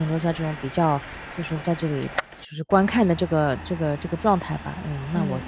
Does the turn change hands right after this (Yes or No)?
No